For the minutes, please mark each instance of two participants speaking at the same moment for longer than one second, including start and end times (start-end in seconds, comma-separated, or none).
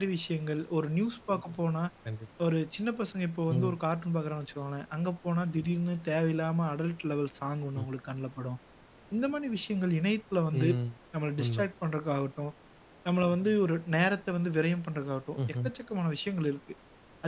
none